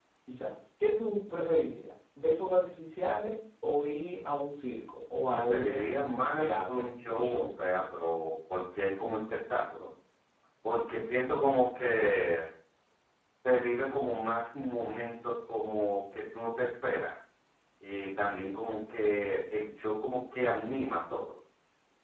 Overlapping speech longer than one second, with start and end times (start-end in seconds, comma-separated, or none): 5.3-7.5